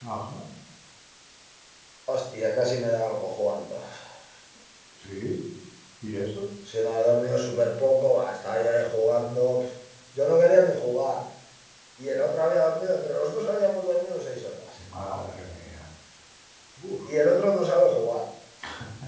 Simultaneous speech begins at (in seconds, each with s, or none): none